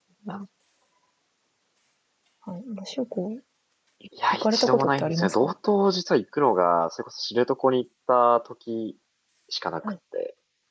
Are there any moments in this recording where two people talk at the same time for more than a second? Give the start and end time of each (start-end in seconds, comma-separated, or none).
4.3-5.5